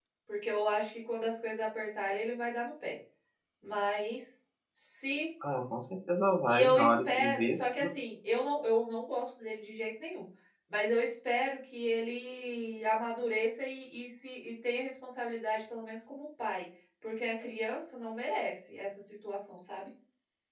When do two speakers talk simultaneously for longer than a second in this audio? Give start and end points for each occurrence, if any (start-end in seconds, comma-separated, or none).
6.5-7.9